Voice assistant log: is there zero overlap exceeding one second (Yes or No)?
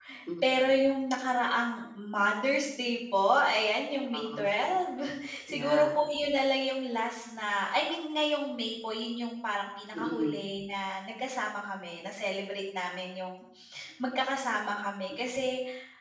Yes